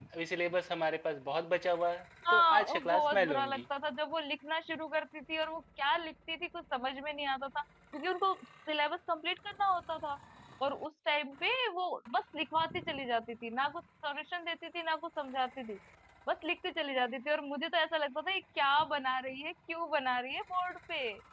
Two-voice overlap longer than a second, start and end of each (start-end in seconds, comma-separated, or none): 2.3-3.6